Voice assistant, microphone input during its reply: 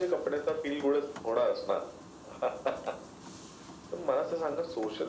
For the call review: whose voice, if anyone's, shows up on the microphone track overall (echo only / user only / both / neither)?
echo only